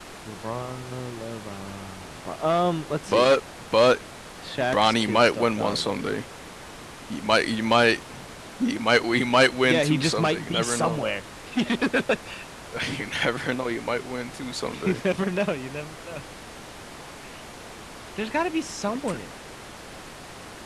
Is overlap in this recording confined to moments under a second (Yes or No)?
No